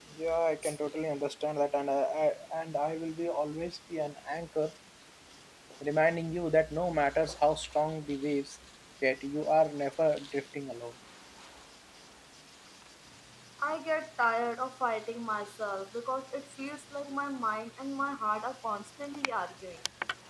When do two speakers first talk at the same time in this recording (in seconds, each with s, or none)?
none